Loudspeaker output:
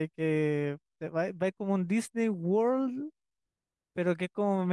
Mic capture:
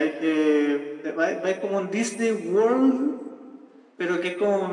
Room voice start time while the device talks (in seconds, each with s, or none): none